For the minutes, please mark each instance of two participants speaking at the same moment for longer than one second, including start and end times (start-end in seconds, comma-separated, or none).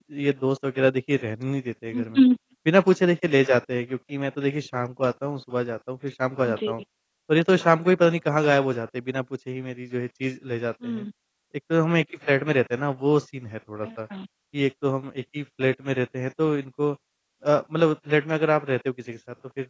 none